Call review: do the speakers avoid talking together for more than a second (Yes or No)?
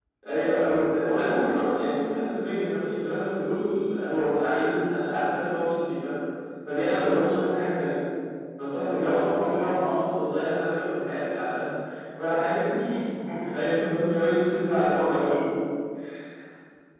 No